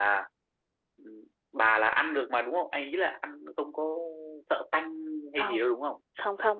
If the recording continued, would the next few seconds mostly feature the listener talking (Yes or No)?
Yes